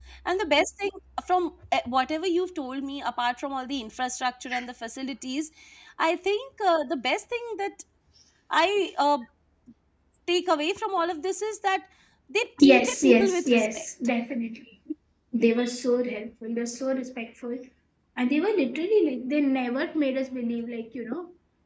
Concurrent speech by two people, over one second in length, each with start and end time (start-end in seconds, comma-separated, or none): 12.6-13.8